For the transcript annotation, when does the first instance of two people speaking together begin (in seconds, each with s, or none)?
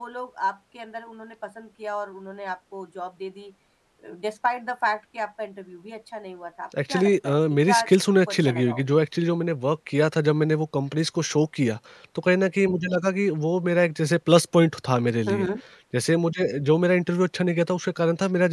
6.7 s